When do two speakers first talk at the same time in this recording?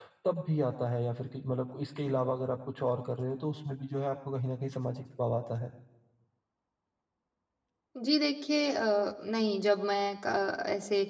none

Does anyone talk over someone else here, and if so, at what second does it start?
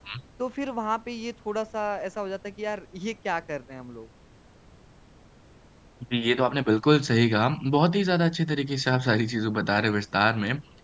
none

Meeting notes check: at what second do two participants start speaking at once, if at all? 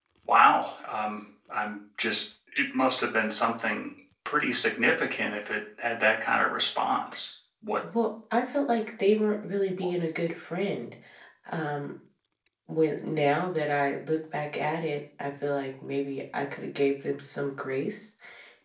none

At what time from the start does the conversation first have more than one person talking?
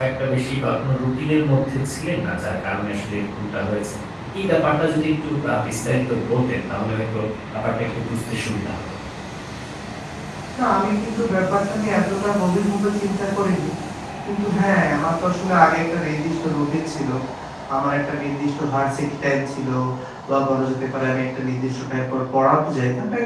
none

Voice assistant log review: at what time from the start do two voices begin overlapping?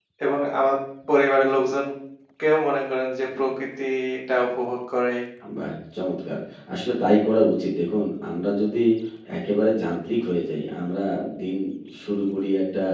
none

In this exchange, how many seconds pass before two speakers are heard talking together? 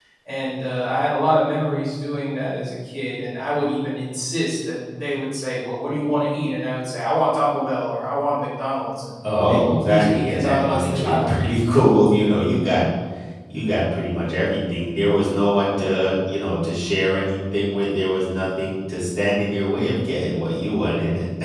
9.2 s

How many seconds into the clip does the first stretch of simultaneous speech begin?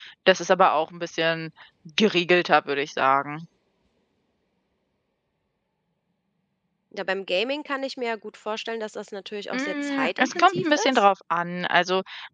9.5 s

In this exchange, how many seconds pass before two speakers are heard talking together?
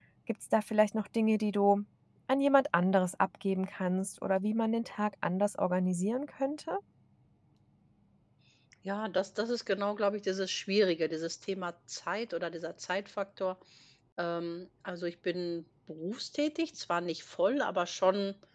none

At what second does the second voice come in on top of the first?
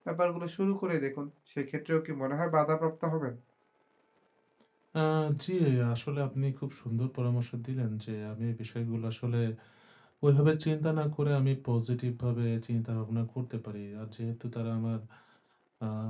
none

